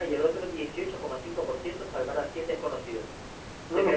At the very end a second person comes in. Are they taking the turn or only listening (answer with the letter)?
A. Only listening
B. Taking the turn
B